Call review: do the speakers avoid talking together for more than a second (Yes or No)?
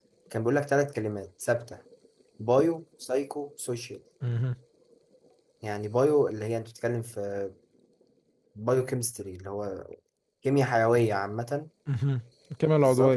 Yes